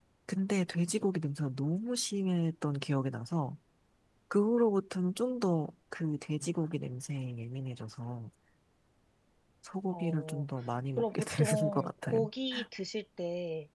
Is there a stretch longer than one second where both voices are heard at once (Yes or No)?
Yes